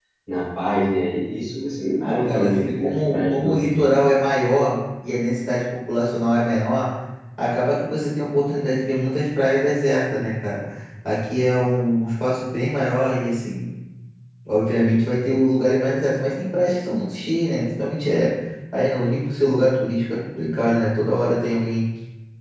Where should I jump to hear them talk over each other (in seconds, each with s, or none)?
2.0 s